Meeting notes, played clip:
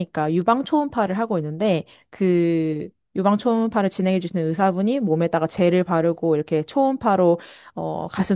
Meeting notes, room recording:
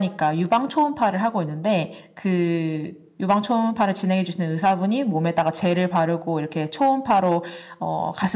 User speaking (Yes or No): No